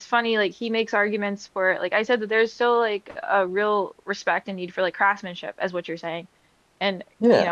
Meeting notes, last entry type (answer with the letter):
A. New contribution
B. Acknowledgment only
B